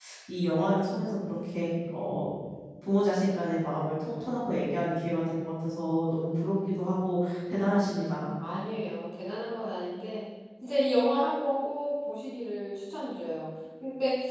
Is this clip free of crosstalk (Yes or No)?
Yes